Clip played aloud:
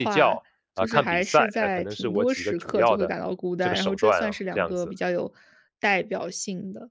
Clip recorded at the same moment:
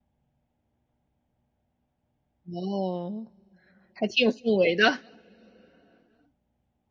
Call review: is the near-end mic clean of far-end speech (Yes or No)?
Yes